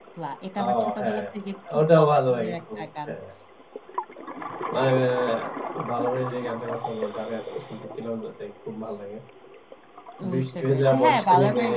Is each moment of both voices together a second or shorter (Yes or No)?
No